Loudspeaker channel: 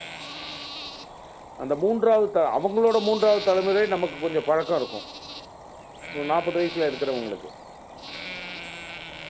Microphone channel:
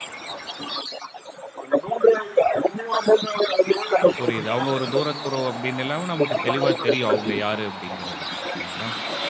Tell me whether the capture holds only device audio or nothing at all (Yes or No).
No